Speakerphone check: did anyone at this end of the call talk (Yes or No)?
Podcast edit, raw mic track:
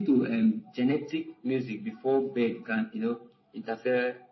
No